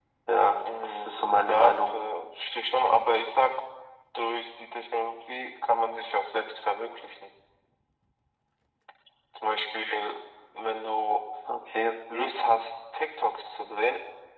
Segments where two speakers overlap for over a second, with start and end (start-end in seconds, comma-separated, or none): 0.6-1.9